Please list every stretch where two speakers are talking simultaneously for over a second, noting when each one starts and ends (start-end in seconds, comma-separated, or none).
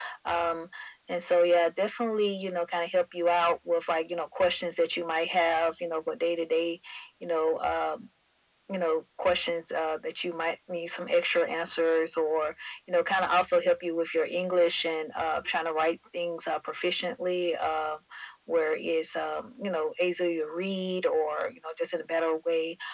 none